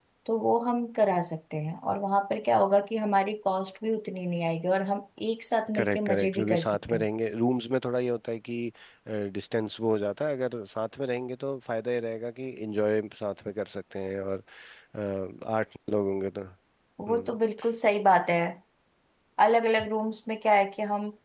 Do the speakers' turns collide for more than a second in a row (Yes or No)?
Yes